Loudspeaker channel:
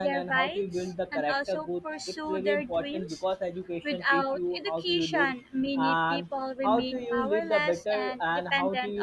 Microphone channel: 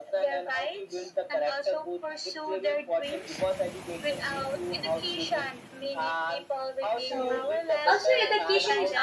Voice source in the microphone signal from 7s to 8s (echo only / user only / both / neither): both